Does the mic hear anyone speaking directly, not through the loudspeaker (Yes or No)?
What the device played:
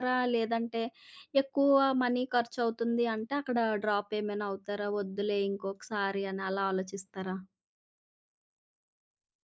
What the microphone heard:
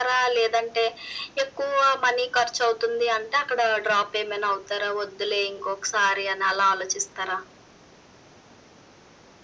No